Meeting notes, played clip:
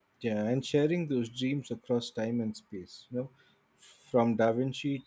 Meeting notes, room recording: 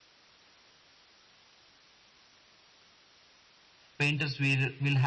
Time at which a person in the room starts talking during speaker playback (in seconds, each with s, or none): 4.0 s